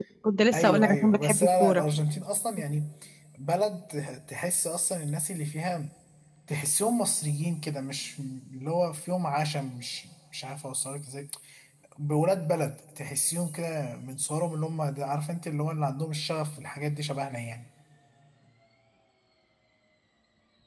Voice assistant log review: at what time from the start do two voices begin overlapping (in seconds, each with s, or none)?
0.5 s